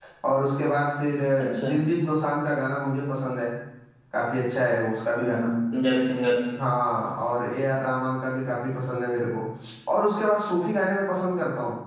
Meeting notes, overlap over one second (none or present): none